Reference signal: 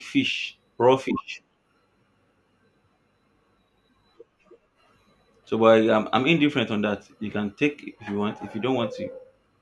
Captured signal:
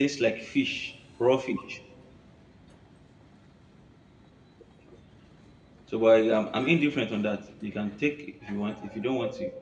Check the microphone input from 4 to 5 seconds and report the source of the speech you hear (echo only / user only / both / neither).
neither